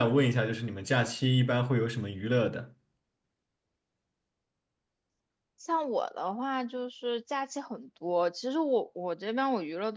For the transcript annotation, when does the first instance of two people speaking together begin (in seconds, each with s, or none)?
none